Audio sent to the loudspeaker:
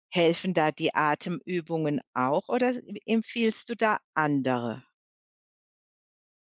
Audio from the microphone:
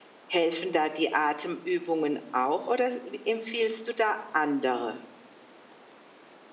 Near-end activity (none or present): none